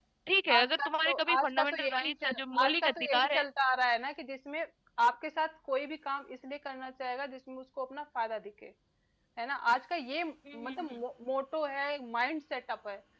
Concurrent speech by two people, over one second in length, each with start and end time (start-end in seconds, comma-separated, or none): 0.5-3.4